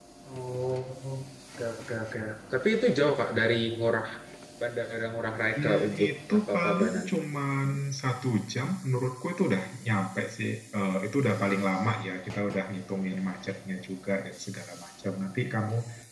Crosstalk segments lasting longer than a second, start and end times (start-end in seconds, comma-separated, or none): 5.6-7.1